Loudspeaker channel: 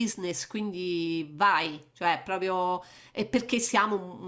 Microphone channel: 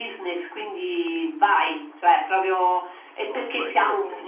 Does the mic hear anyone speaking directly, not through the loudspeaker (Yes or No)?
Yes